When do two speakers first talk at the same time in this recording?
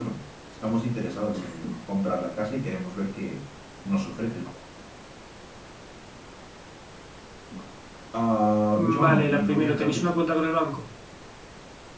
9 s

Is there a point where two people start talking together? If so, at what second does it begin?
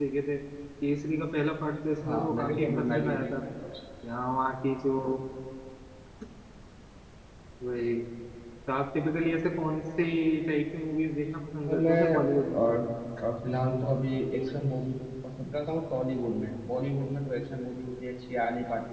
2 s

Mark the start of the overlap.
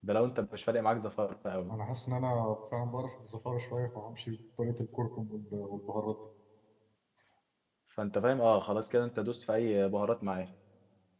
none

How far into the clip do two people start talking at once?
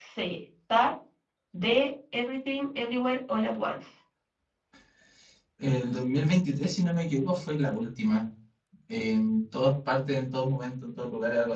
none

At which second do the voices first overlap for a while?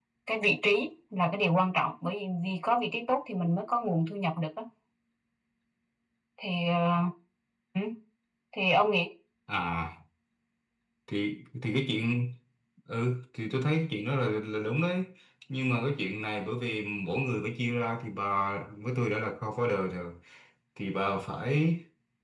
none

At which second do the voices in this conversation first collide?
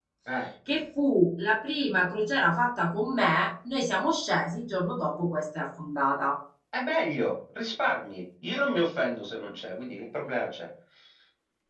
none

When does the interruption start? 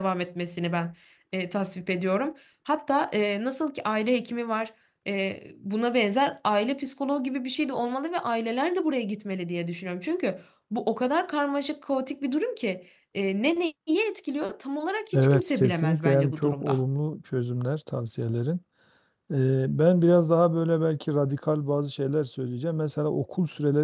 15 s

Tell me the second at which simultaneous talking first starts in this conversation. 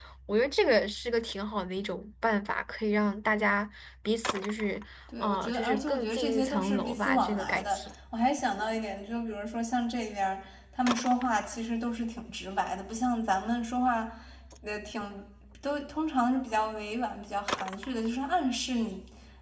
5 s

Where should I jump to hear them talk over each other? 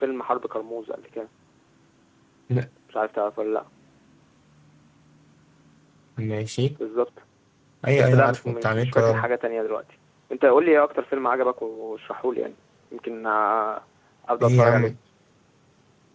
8 s

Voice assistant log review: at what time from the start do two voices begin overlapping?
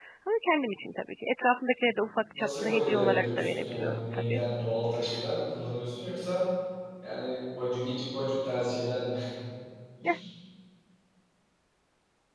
2 s

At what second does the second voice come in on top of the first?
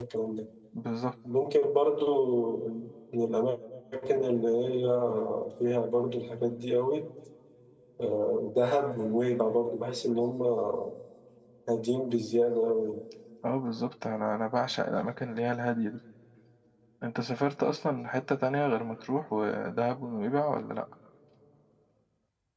none

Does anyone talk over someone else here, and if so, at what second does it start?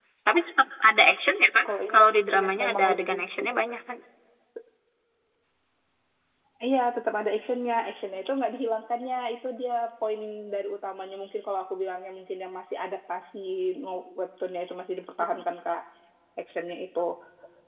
2 s

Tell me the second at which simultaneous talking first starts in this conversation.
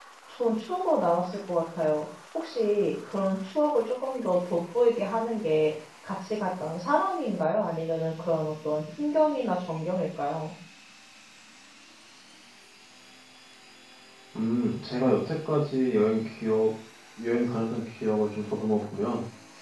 none

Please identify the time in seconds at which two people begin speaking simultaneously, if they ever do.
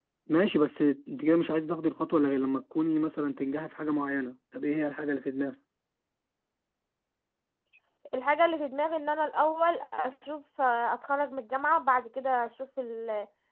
none

